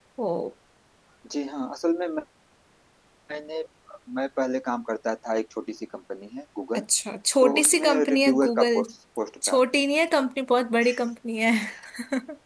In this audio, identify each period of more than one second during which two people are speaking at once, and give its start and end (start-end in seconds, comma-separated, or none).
7.4-8.8